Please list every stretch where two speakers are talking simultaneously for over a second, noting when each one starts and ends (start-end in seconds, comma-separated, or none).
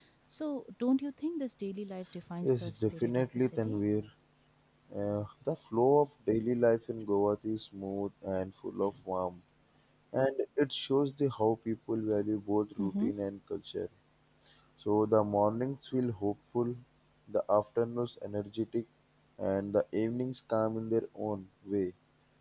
2.4-3.8